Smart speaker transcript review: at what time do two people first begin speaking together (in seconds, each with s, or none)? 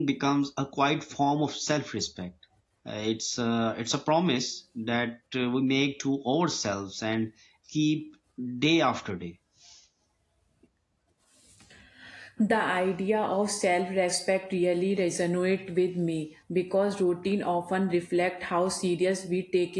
none